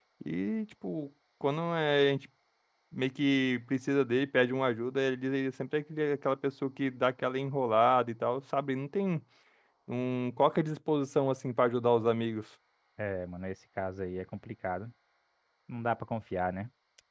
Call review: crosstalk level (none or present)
none